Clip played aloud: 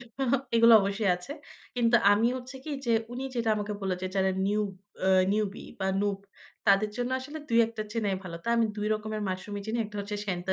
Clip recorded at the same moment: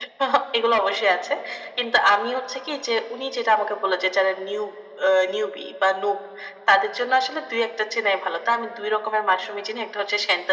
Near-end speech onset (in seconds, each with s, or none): none